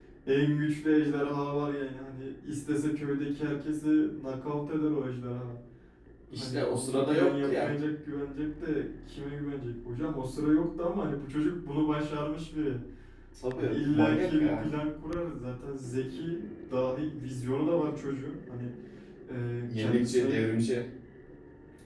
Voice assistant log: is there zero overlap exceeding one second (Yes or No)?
No